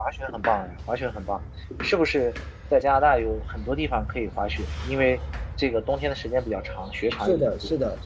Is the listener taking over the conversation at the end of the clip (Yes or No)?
Yes